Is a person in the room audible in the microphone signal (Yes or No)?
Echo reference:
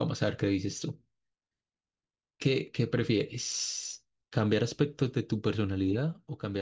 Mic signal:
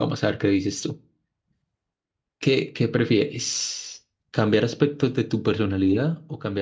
No